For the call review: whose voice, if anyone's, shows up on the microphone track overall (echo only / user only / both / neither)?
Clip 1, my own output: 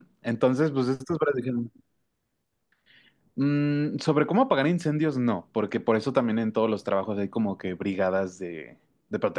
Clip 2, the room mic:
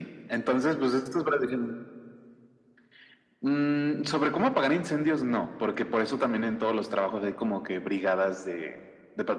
echo only